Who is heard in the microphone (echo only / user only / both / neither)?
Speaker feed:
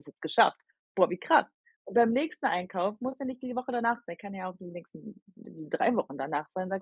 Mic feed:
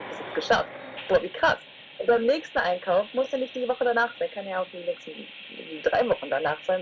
echo only